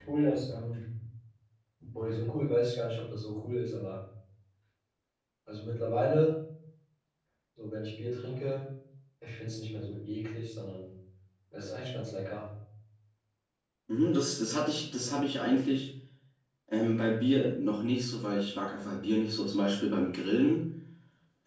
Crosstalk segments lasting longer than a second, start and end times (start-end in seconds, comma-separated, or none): none